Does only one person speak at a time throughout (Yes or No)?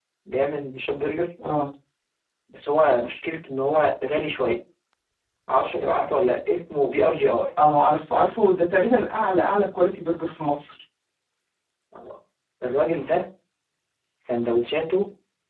Yes